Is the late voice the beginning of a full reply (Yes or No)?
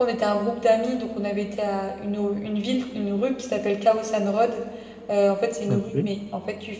No